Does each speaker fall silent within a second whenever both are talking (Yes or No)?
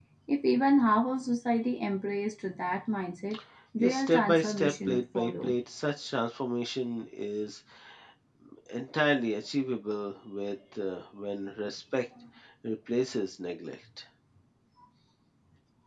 No